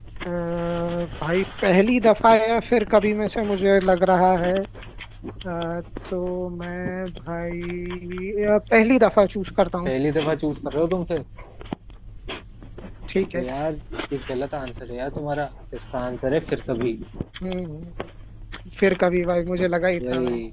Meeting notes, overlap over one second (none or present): none